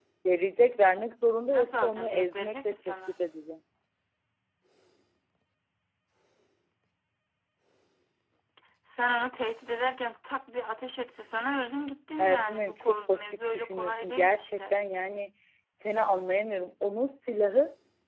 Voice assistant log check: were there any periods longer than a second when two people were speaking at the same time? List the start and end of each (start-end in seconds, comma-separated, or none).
1.5-3.0, 12.2-14.8